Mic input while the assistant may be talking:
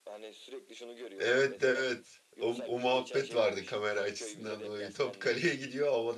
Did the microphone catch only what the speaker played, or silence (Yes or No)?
No